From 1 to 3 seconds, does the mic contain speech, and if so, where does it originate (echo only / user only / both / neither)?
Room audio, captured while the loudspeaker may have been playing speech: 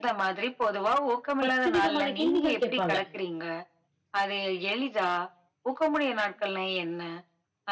both